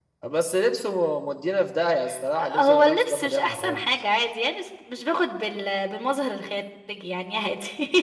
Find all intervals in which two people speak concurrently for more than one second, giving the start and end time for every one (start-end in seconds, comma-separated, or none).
2.4-3.8